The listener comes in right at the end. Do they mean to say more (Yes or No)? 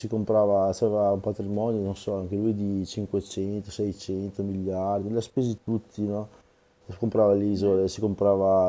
No